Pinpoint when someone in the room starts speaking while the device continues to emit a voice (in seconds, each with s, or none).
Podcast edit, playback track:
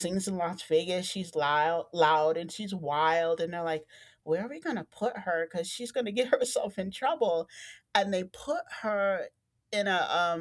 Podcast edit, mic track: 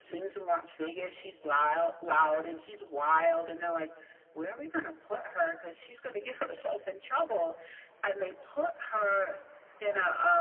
none